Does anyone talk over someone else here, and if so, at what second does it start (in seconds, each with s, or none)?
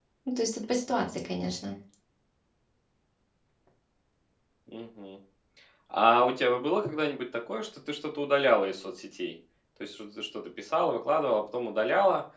none